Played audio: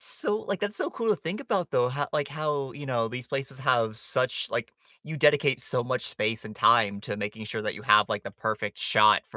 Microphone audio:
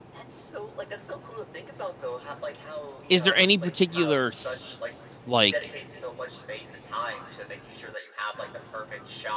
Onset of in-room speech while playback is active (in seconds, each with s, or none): 3.1 s